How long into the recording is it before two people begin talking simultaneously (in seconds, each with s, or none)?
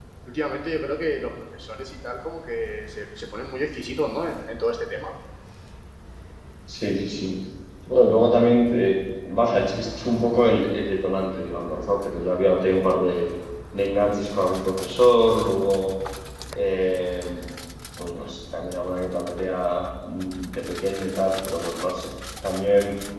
none